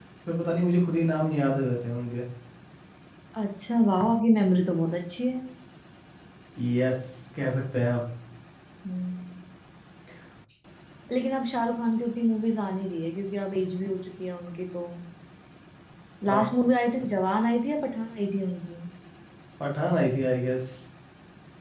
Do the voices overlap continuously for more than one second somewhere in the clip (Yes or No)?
No